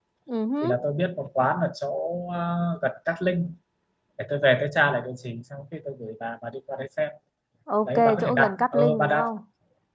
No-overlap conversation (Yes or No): No